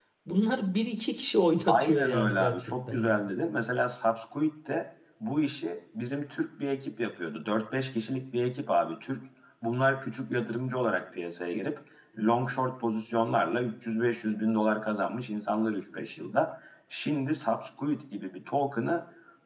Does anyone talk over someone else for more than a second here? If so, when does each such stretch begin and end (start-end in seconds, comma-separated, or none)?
1.7-3.2